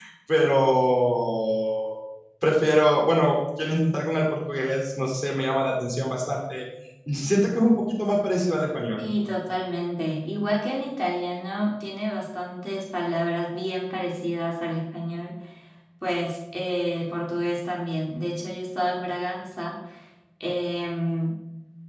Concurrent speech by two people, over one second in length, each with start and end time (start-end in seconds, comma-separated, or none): none